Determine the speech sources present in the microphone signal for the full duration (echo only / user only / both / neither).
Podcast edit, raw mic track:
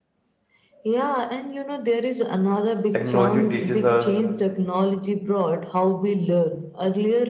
both